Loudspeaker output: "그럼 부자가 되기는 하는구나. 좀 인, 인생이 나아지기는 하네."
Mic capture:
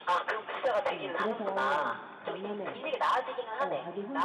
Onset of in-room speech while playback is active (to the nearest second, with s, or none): 1 s